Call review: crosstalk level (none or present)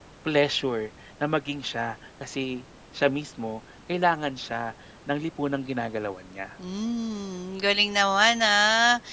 none